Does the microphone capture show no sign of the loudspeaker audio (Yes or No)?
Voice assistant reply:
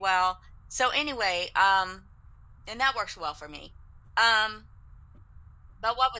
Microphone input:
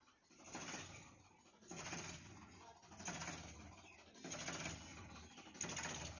Yes